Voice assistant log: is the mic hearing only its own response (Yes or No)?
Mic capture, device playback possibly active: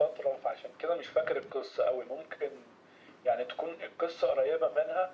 Yes